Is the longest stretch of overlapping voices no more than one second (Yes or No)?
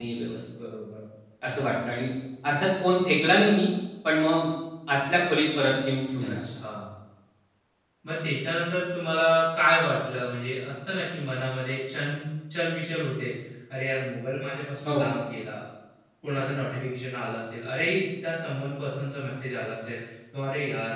Yes